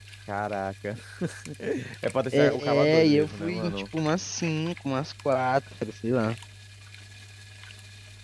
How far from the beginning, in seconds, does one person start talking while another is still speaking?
2.3 s

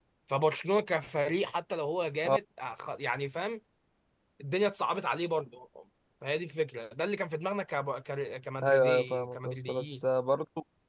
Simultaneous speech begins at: 8.6 s

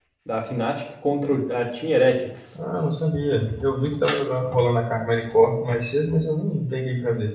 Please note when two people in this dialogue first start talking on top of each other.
none

